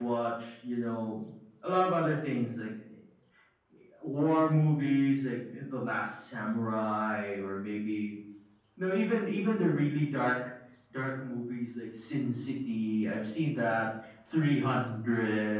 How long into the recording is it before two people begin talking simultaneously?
none

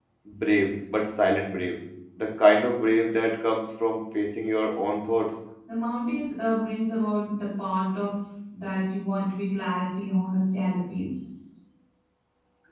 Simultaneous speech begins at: none

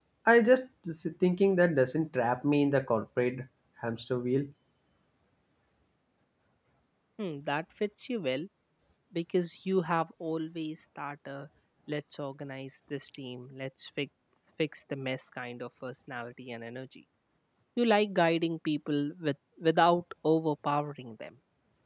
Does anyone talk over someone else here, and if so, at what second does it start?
none

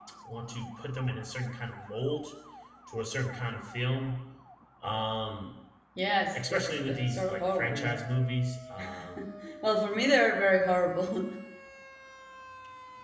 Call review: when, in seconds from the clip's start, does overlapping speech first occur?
6.3 s

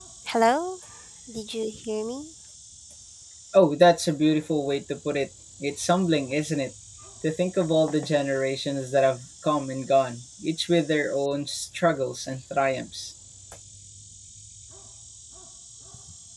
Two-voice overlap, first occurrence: none

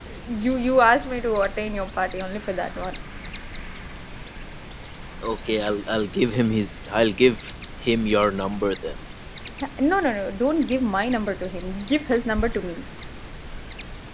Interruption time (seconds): none

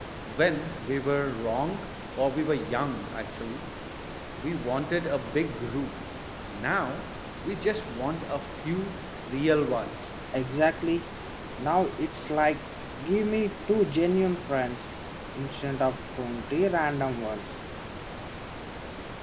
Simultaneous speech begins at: none

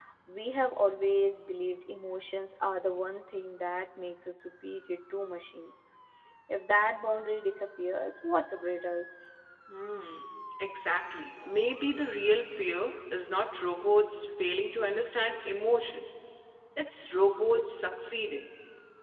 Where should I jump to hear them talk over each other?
none

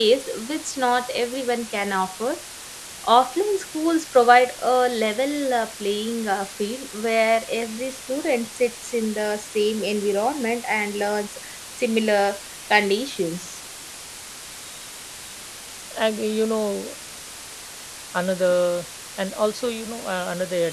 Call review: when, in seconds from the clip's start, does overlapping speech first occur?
none

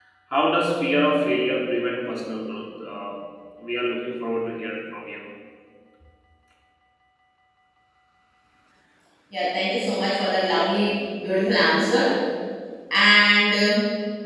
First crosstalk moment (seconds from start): none

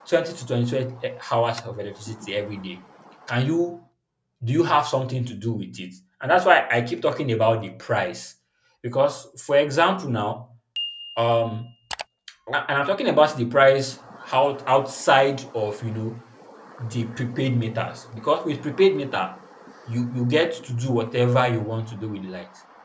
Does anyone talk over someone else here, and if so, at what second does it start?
none

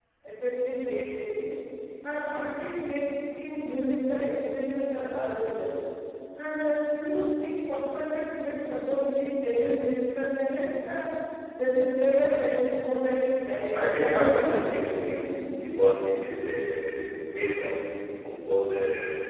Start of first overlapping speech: 13.8 s

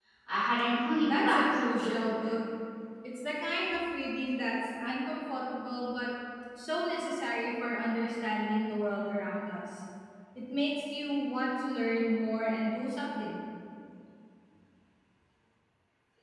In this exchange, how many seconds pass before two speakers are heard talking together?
1.0 s

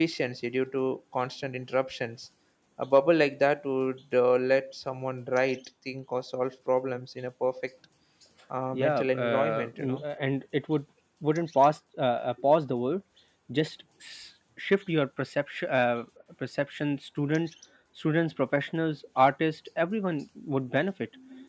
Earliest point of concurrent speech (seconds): 8.7 s

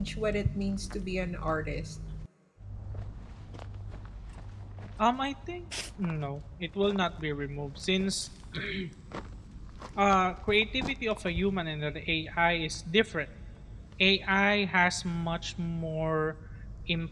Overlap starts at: none

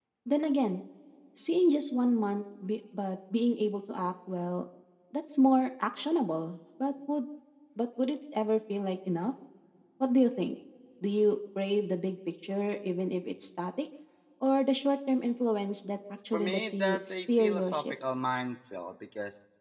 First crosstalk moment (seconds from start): 16.3 s

